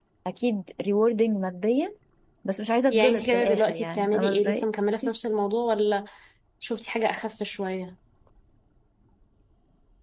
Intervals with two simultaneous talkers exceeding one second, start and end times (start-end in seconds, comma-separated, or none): 2.9-4.6